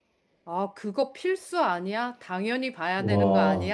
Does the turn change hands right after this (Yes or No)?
No